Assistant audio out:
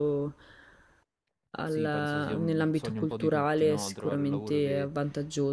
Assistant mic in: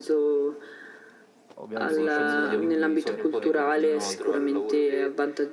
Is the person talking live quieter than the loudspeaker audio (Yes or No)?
Yes